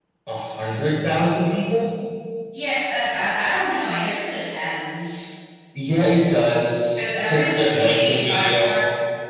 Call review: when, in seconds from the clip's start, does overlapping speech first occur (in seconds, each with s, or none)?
7.0 s